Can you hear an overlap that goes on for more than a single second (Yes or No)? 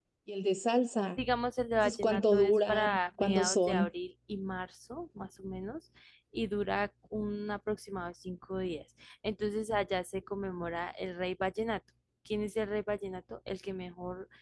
Yes